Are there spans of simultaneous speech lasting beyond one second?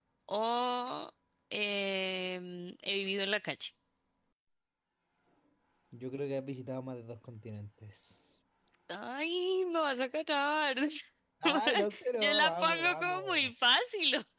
Yes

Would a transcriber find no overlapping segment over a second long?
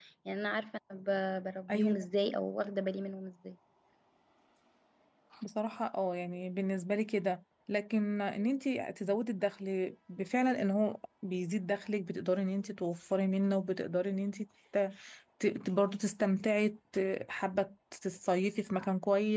Yes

